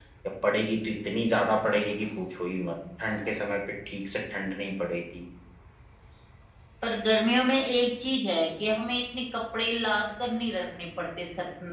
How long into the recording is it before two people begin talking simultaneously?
none

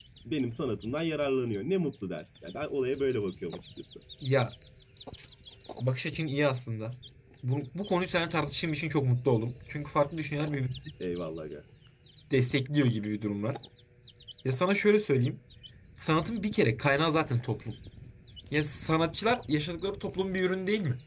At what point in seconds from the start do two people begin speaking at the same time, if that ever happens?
none

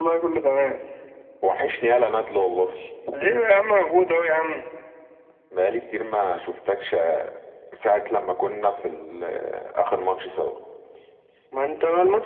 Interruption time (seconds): none

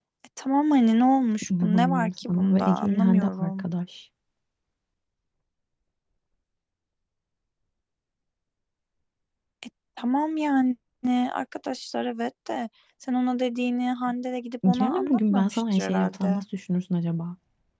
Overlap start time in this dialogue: 1.5 s

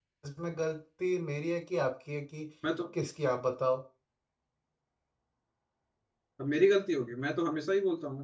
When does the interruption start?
none

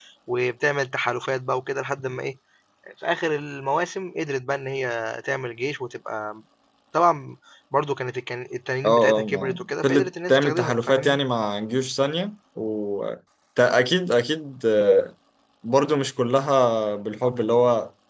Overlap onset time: 8.8 s

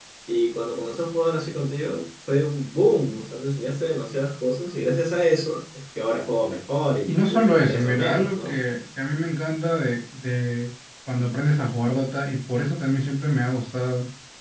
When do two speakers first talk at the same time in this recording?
7.1 s

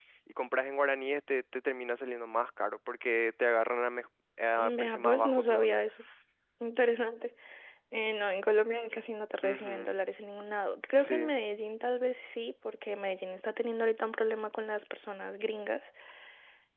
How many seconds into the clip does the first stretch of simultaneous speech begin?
4.6 s

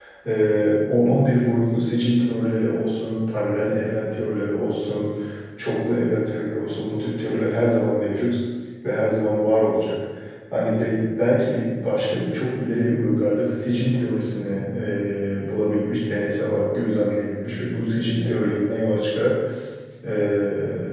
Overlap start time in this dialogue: none

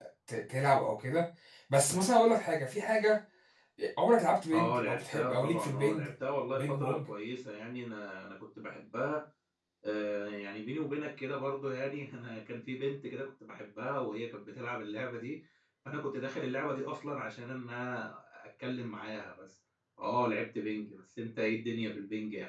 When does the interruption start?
4.5 s

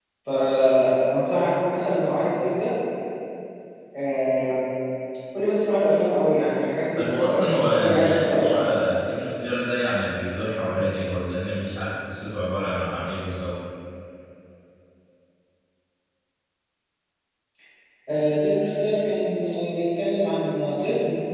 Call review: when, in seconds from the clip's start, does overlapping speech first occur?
6.9 s

